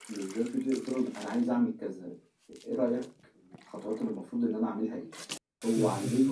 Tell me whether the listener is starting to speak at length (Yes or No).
No